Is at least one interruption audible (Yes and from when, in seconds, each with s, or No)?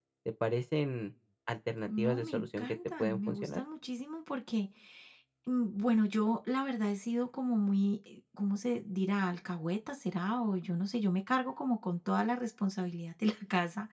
Yes, from 1.9 s